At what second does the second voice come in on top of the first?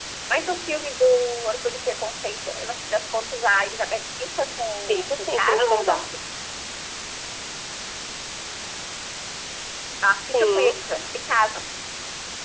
4.9 s

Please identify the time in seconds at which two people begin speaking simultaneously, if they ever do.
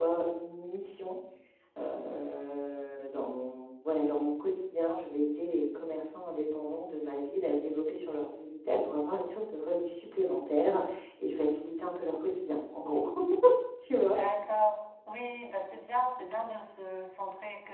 none

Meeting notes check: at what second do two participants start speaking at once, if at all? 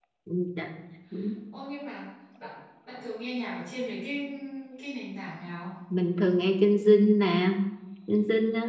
none

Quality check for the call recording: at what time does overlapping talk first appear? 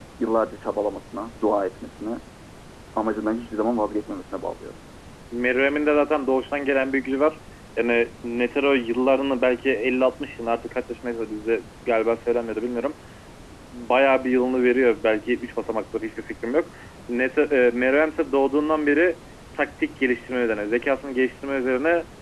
none

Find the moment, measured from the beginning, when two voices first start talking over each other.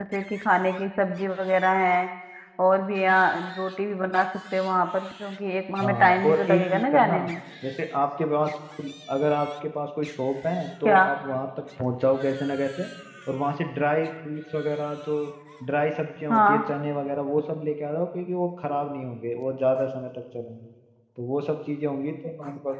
5.8 s

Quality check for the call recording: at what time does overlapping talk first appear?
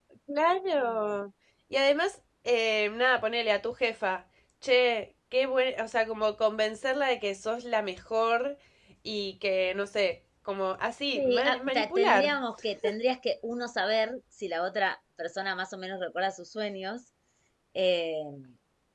11.2 s

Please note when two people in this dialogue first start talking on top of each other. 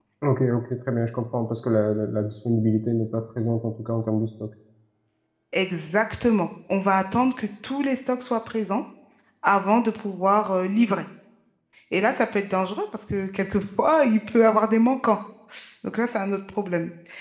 none

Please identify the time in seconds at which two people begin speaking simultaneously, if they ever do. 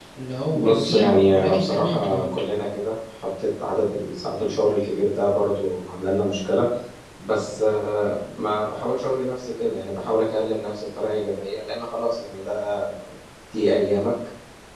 0.5 s

